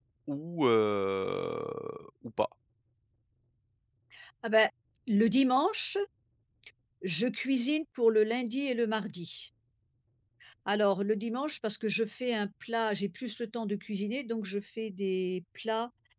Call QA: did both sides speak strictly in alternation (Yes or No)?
Yes